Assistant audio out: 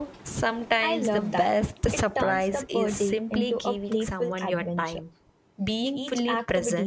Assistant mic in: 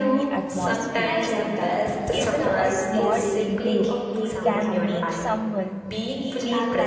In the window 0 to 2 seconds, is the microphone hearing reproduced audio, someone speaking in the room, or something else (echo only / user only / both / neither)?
both